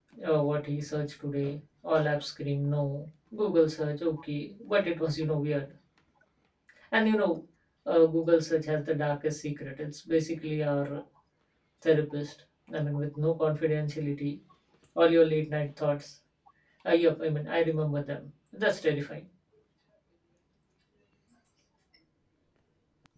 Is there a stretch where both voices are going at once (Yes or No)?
No